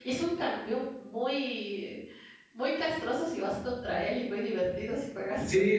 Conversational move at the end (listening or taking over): taking over